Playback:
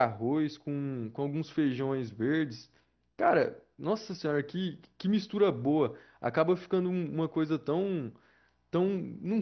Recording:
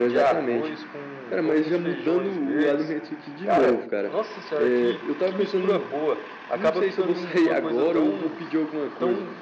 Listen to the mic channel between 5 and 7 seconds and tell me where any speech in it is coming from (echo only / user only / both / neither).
both